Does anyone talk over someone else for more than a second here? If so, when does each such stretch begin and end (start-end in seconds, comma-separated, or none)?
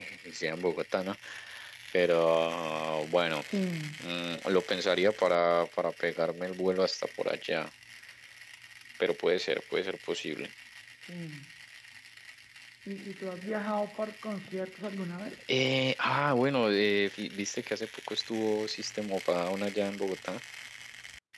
none